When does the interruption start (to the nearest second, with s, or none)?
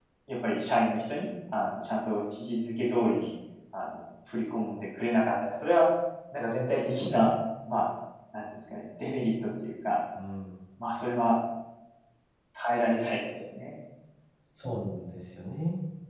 none